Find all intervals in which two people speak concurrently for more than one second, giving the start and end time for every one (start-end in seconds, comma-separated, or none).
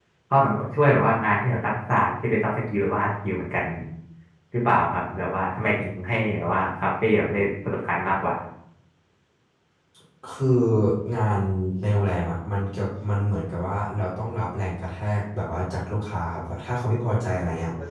none